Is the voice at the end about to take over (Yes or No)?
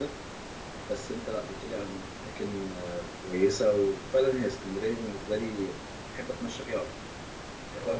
Yes